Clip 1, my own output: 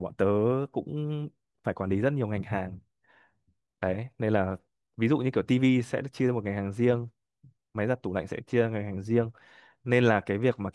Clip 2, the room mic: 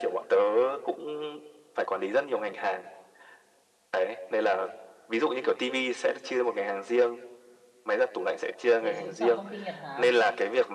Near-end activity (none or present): present